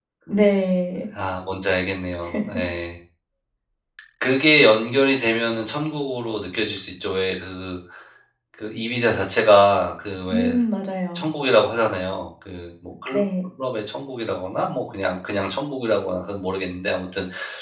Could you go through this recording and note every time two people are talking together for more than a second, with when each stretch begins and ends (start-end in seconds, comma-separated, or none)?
none